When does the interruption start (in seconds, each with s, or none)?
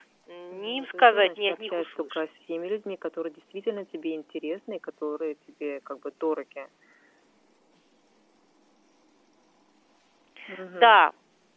0.5 s